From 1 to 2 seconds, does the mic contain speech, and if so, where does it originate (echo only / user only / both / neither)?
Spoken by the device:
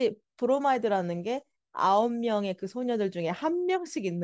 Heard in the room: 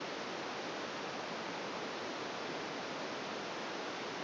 neither